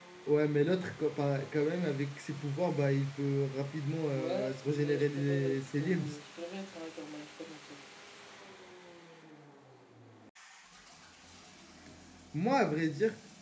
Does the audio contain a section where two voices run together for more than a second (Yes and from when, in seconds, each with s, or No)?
Yes, from 4.1 s